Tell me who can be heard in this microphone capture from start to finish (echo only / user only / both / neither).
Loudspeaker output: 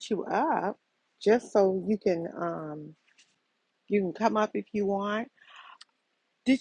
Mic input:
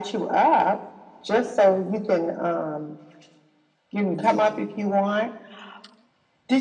both